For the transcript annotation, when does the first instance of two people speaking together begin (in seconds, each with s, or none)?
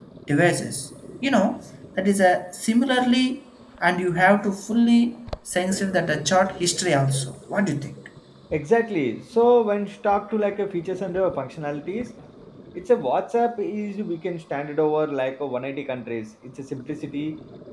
none